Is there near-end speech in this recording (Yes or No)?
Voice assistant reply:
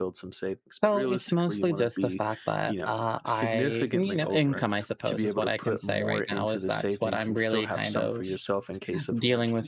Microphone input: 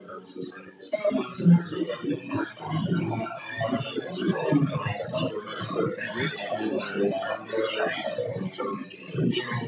Yes